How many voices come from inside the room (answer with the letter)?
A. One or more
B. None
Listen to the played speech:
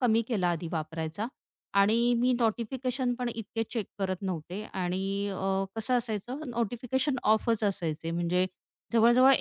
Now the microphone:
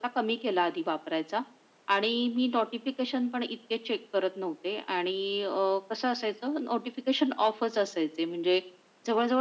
B